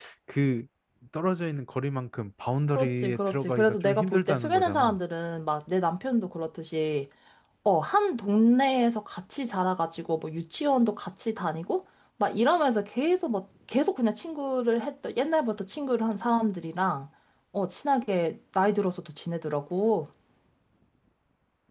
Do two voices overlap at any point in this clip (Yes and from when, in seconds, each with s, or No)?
Yes, from 2.7 s